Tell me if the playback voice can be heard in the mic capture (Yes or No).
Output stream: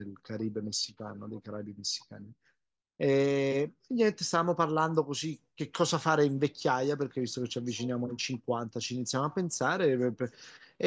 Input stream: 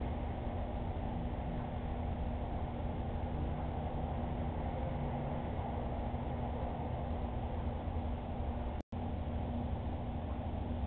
No